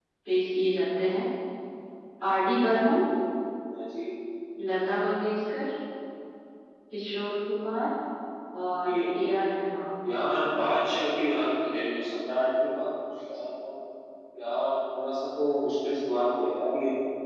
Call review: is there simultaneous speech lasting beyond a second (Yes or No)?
No